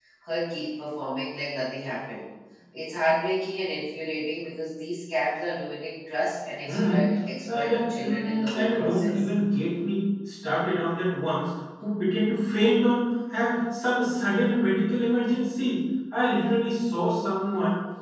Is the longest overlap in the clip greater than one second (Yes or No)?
Yes